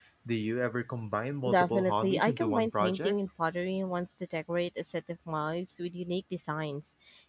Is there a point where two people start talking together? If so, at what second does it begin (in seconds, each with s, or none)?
1.4 s